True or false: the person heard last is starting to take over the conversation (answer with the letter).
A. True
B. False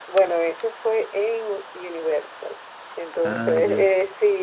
B